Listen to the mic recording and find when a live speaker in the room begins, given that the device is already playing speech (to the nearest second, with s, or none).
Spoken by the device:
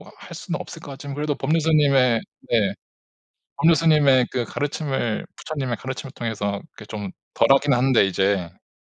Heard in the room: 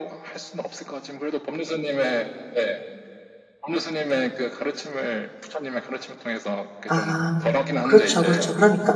7 s